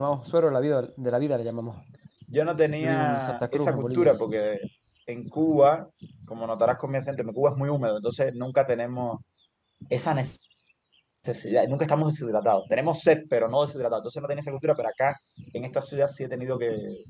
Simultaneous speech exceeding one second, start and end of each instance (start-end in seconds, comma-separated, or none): 2.8-4.1